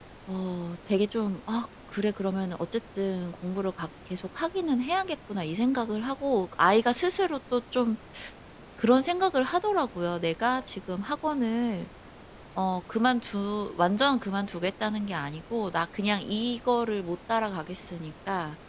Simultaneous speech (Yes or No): No